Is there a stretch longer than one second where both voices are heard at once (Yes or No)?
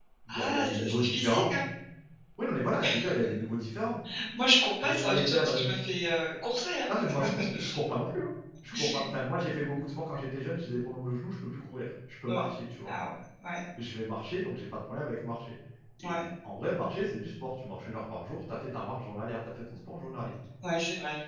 Yes